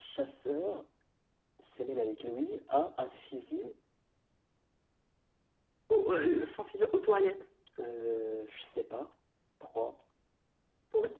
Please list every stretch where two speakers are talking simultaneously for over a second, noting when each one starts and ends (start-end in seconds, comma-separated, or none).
none